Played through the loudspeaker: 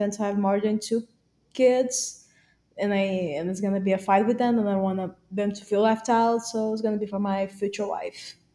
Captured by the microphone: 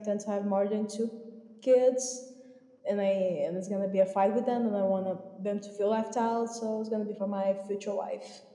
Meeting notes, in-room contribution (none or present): none